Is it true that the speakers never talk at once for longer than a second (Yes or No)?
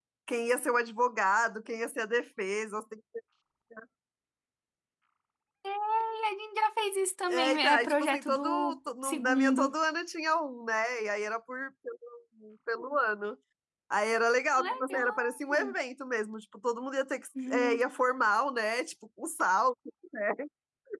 No